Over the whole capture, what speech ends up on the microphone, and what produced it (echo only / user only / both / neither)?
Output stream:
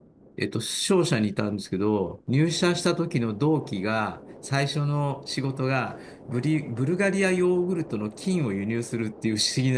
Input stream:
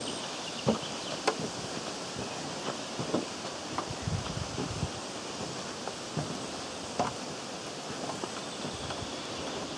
neither